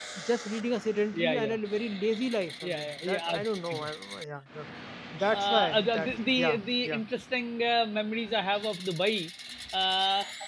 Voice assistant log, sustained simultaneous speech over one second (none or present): present